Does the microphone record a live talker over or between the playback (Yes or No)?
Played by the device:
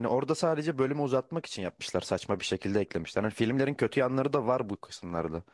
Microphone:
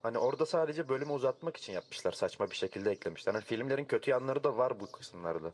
No